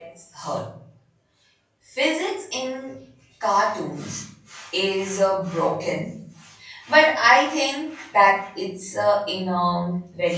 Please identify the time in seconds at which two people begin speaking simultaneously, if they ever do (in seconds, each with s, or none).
none